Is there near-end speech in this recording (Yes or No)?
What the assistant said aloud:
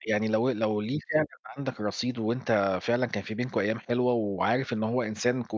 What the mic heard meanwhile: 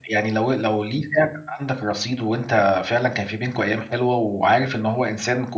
No